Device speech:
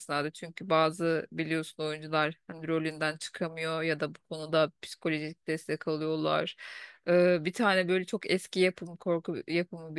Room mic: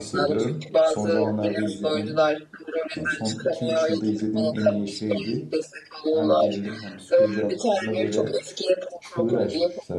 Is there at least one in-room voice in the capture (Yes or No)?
Yes